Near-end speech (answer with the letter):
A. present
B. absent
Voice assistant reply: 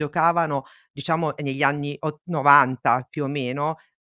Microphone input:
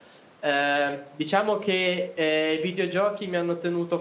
A